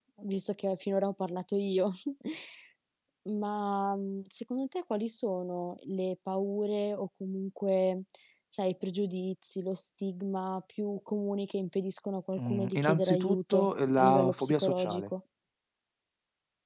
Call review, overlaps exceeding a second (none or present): present